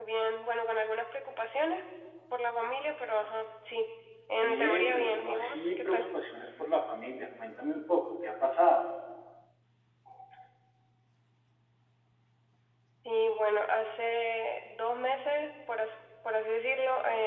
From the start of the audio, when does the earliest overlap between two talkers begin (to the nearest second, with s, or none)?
4 s